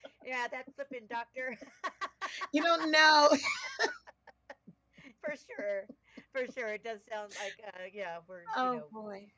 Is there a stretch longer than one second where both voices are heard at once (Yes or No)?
No